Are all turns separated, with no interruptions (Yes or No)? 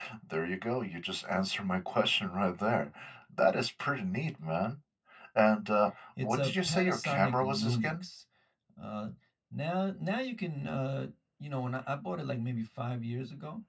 No